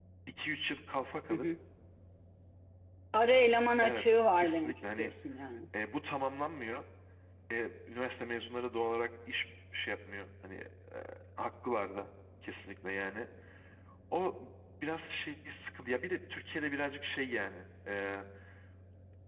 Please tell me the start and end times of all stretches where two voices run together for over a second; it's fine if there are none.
3.8-5.1

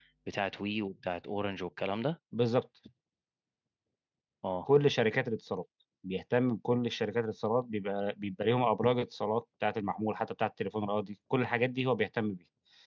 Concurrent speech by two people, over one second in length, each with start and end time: none

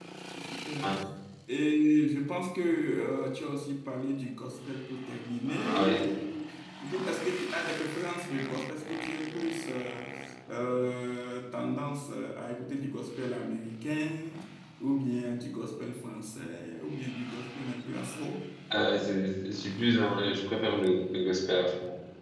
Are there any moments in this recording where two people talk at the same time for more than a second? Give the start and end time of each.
none

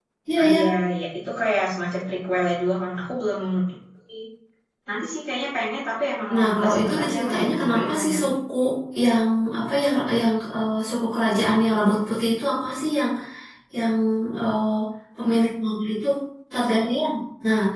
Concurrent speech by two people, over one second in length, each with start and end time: 6.3-8.3

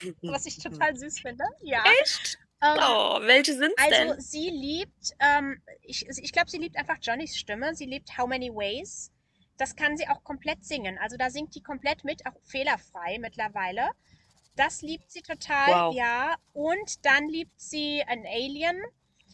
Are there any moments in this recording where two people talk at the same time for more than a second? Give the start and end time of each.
none

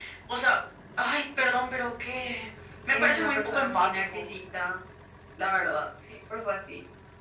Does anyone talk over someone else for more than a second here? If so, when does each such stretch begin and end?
2.9-4.3

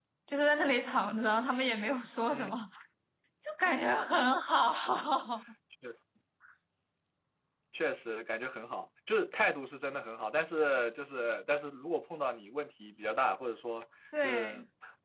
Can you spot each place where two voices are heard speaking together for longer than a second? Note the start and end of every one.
none

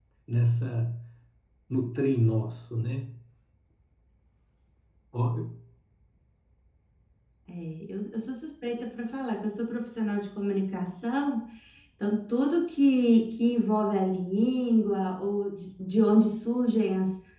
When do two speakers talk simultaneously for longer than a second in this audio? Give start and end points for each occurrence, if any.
none

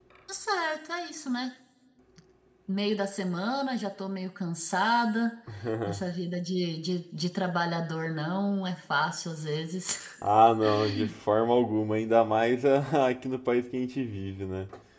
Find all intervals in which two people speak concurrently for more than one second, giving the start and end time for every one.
none

